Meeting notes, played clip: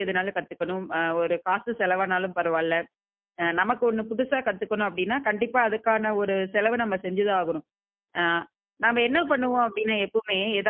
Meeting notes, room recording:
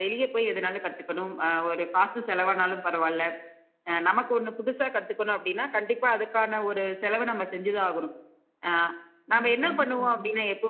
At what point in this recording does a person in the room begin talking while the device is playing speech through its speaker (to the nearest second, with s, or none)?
9 s